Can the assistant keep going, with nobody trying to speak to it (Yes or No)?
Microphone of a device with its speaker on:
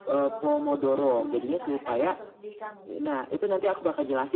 No